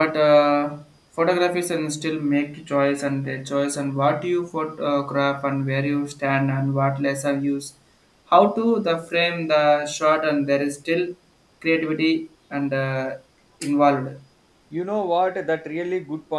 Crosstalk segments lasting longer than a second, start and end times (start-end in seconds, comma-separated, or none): none